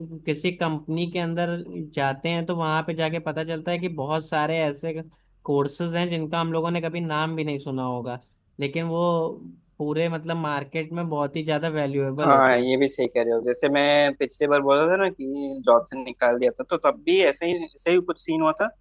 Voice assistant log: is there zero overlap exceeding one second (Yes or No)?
Yes